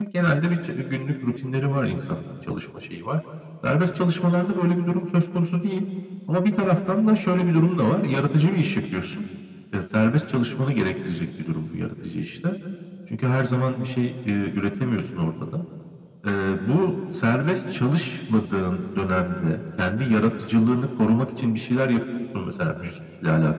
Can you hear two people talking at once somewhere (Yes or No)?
No